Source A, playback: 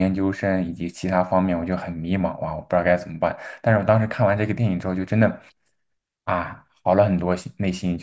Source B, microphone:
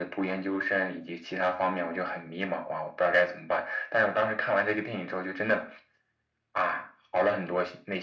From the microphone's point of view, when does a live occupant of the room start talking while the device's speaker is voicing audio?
none

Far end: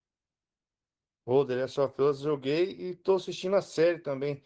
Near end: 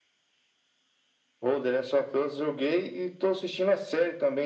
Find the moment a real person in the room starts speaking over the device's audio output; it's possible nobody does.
none

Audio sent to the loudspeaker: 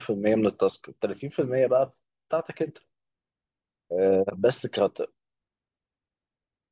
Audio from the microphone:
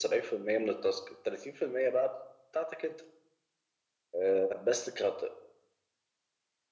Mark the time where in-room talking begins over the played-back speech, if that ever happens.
none

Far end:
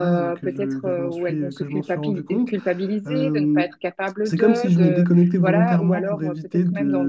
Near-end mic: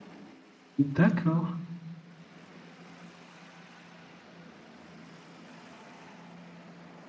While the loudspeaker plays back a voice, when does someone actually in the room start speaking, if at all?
0.8 s

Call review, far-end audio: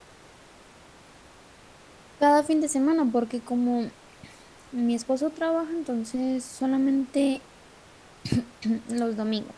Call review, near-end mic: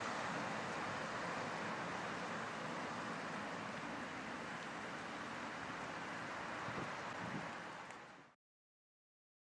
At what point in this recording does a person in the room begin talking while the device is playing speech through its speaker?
none

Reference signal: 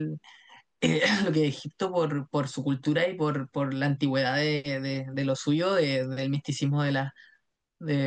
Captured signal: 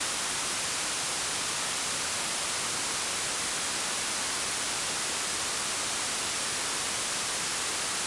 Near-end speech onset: none

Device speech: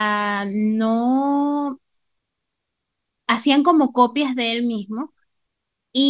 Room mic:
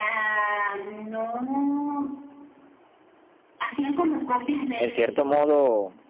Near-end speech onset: 4.8 s

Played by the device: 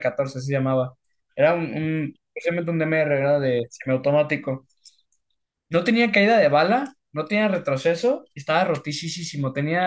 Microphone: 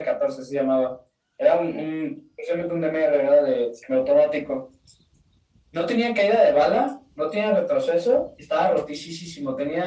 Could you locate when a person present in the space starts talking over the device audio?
none

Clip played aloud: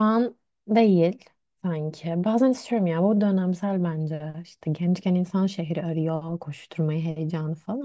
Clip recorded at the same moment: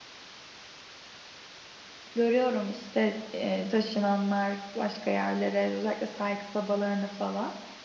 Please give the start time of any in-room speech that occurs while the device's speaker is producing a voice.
2.1 s

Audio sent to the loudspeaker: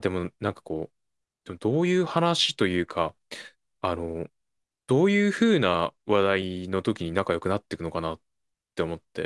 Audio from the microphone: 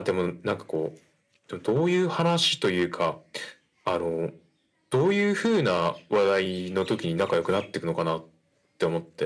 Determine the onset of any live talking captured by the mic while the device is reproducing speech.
none

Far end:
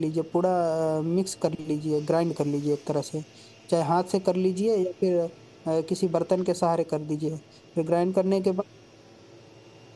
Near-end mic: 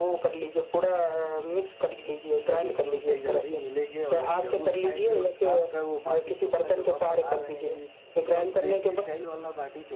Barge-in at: 2.4 s

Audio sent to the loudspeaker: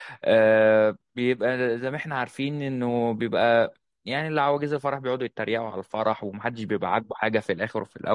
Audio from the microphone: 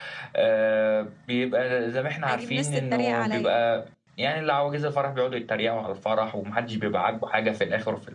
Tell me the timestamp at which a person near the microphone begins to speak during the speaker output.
2.3 s

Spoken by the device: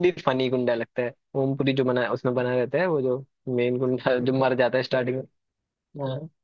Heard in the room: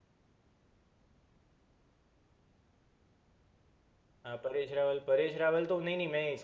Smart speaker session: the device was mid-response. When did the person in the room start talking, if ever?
4.2 s

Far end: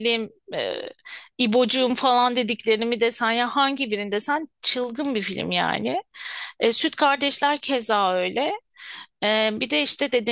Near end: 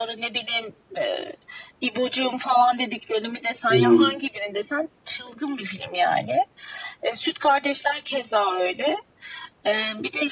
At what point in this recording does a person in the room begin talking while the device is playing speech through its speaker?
3.7 s

